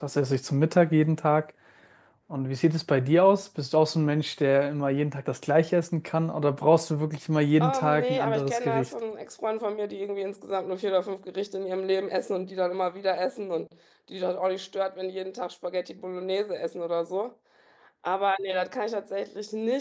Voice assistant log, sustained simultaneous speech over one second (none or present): present